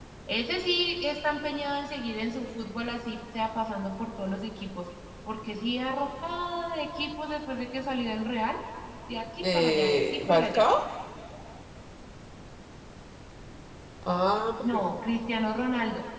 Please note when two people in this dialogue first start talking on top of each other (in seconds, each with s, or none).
9.4 s